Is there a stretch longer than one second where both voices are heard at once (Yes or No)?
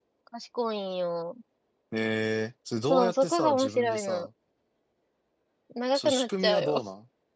Yes